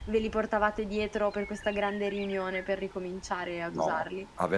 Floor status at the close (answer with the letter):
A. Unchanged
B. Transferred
B